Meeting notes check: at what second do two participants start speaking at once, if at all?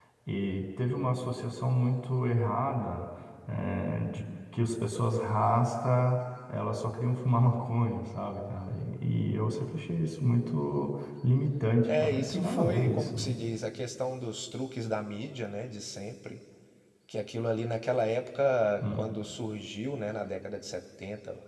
11.9 s

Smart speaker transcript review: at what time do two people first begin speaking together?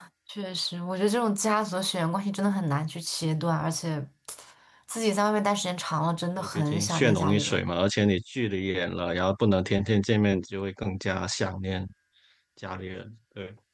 6.4 s

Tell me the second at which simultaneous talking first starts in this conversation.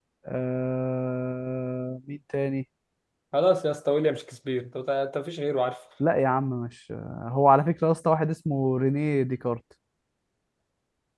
none

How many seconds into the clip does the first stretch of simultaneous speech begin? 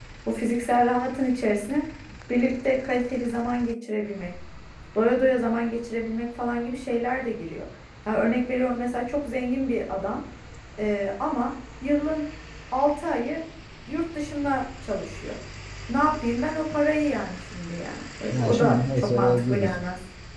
18.3 s

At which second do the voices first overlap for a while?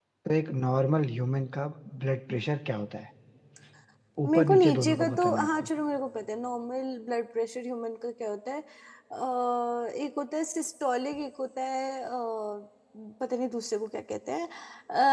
4.2 s

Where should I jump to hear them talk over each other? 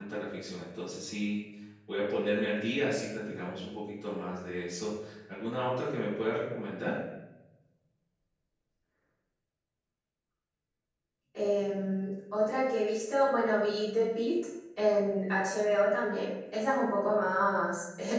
none

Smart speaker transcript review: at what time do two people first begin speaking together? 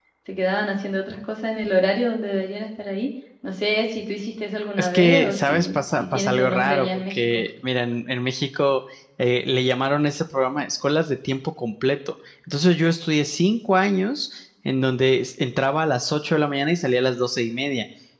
4.8 s

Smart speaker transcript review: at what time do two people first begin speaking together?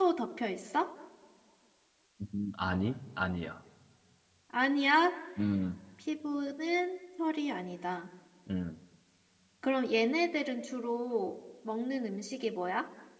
none

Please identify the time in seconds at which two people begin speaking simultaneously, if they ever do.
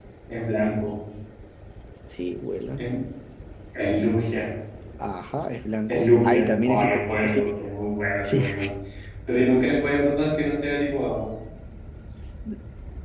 5.9 s

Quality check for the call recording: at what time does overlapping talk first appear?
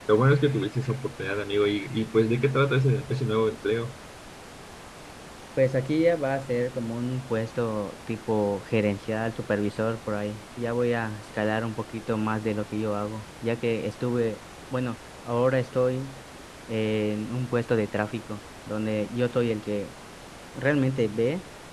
none

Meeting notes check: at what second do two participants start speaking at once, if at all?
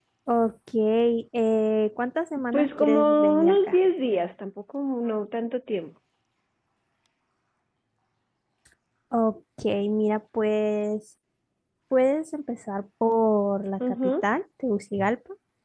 2.5 s

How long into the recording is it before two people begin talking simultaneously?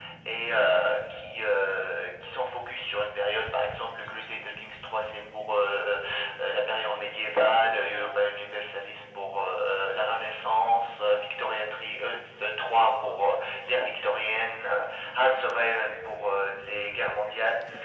none

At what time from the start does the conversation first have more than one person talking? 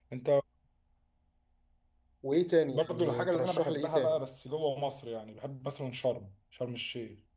2.7 s

